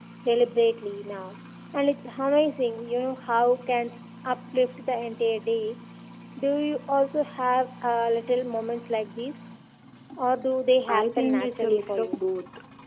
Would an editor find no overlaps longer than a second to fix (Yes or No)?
No